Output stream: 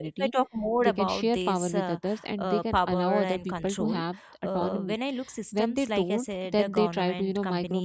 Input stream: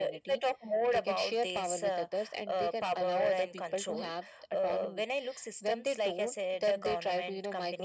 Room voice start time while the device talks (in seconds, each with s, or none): none